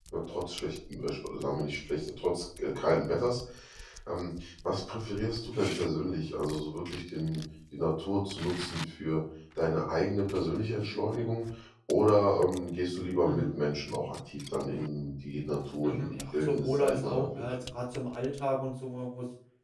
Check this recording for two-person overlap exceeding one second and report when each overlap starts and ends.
15.8-17.5

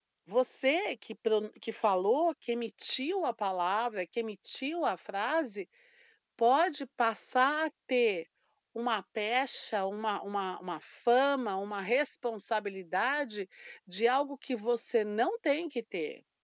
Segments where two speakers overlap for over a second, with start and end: none

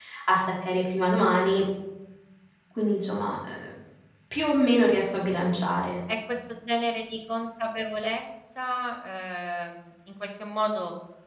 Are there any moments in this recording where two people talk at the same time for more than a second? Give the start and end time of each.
none

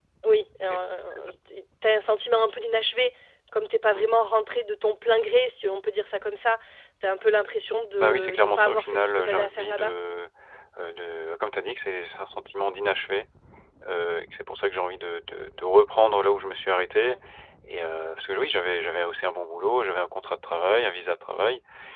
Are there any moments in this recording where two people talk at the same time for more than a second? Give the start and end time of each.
8.0-9.9

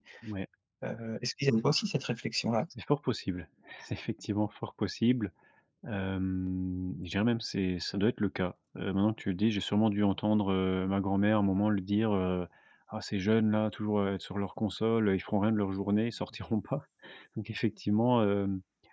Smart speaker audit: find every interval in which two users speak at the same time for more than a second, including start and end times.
none

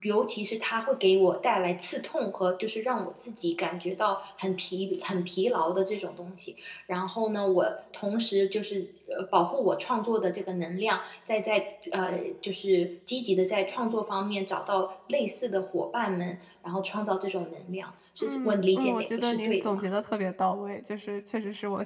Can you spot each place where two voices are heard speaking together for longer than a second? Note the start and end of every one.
18.2-19.8

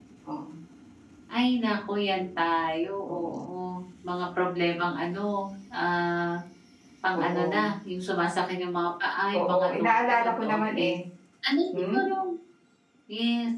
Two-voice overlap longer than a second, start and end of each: 9.3-10.9

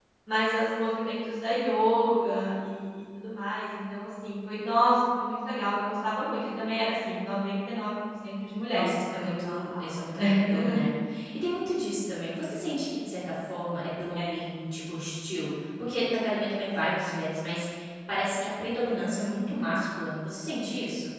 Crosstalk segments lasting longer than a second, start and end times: 8.7-10.2

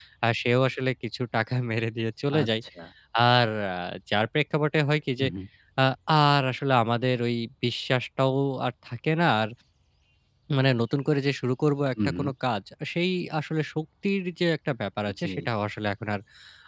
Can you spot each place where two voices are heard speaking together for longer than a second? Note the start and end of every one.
none

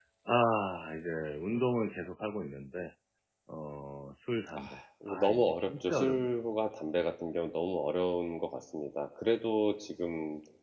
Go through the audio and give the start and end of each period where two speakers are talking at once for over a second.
5.1-6.3

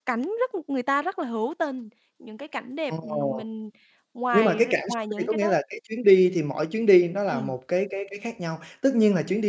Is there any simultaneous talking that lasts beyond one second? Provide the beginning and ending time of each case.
4.3-5.6

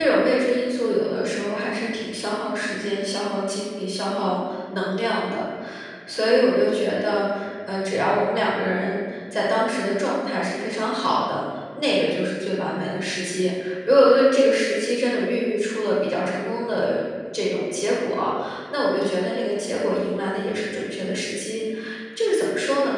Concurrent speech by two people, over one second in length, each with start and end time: none

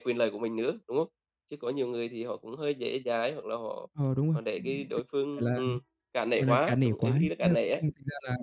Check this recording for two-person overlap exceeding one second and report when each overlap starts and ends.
6.4-7.8

